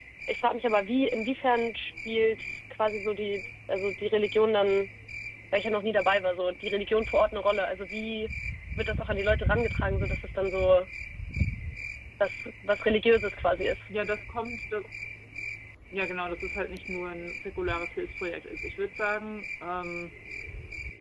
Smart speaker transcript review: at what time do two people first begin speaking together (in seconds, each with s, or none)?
none